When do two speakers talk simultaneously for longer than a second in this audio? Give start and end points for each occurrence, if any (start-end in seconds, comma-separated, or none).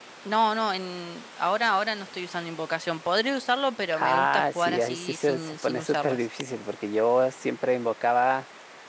4.0-6.2